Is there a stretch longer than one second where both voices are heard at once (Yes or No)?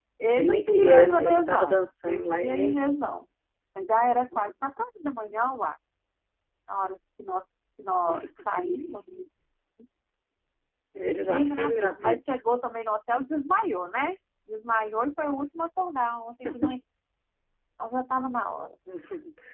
Yes